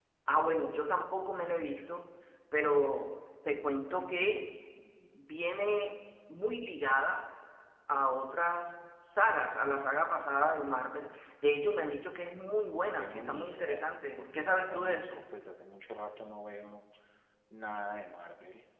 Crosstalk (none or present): present